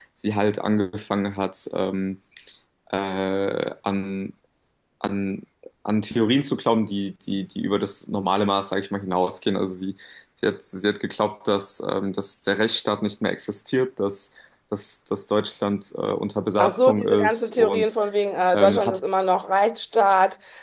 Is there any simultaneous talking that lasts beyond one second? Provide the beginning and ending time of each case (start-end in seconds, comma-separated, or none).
16.6-17.9